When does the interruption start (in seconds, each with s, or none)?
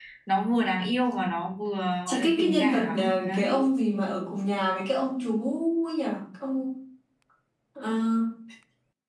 2.1 s